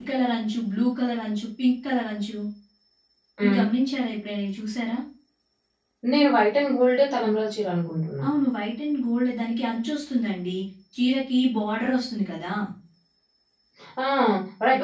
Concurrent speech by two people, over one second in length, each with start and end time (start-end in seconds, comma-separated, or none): none